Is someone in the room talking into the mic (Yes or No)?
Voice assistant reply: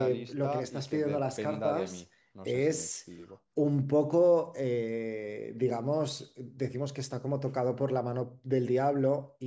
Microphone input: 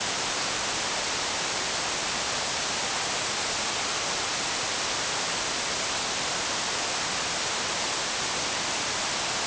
No